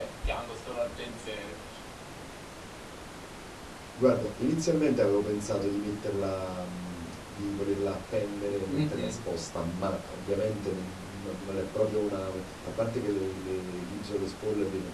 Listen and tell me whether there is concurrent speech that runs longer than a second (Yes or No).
No